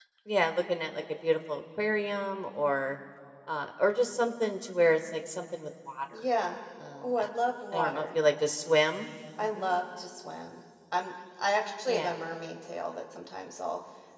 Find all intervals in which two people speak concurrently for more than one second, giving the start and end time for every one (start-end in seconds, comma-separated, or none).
none